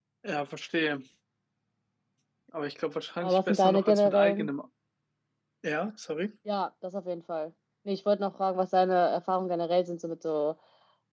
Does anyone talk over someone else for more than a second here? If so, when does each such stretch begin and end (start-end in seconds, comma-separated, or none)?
3.2-4.5